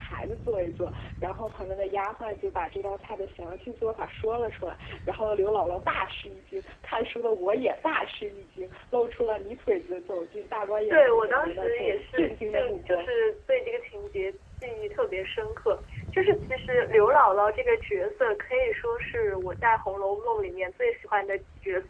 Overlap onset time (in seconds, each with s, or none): 10.9 s